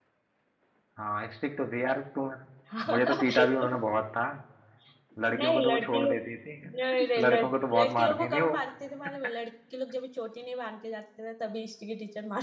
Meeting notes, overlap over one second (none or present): present